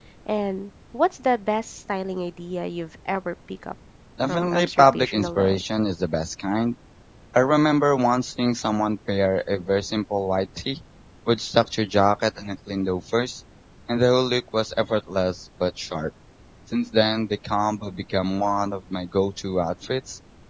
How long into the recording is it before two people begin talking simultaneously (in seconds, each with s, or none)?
4.2 s